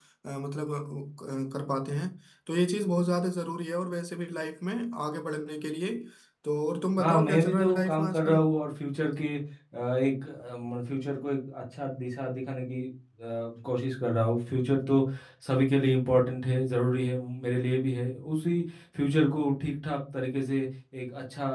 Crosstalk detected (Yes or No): Yes